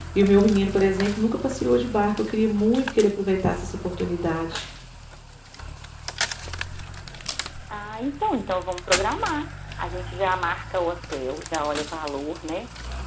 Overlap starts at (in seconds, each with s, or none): none